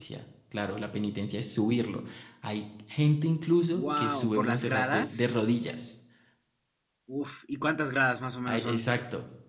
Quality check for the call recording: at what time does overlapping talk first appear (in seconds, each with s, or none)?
3.7 s